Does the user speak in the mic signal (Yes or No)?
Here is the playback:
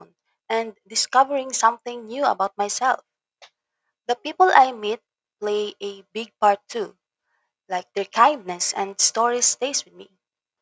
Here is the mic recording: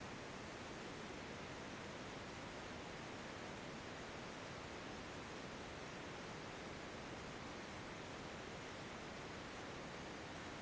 No